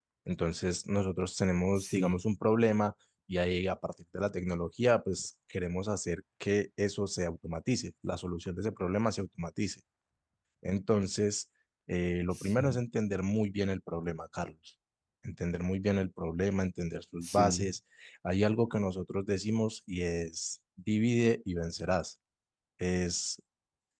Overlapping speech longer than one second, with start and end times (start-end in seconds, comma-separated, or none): none